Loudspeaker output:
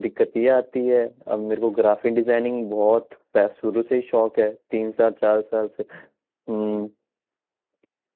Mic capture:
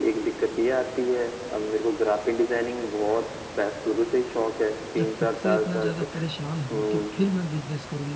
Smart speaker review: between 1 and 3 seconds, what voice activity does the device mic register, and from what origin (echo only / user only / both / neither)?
echo only